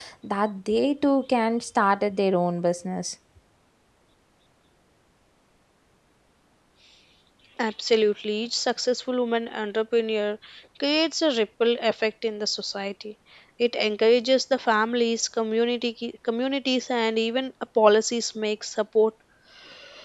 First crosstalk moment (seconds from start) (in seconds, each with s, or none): none